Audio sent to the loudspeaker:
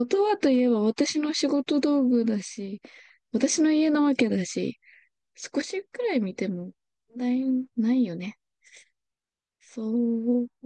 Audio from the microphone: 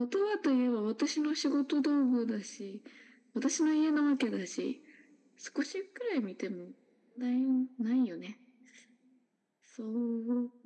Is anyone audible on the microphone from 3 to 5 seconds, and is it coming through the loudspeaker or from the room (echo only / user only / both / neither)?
echo only